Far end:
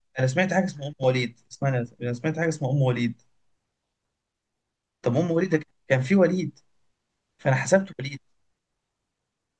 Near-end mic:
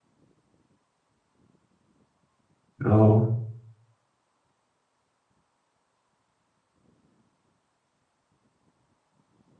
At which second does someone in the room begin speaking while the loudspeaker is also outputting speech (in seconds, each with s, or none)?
2.8 s